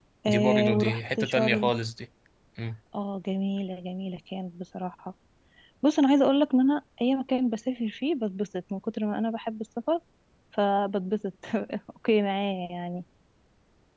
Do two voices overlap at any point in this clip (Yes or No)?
Yes